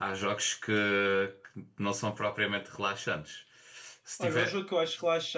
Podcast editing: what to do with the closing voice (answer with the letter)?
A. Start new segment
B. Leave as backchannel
A